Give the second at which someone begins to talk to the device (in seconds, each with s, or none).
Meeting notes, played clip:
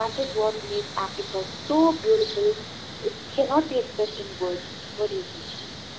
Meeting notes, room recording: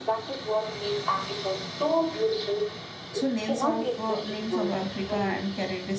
3.2 s